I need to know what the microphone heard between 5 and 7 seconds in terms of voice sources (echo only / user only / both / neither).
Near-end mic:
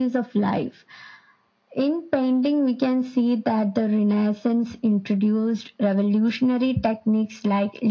echo only